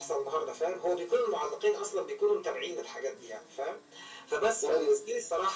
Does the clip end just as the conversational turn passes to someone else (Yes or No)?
No